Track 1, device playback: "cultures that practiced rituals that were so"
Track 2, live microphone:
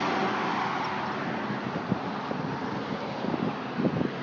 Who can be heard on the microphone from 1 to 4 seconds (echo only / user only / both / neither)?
neither